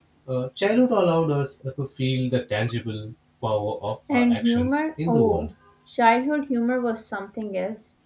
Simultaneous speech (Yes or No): Yes